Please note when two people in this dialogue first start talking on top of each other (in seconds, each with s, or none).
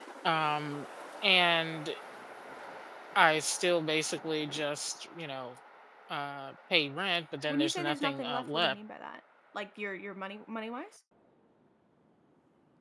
7.5 s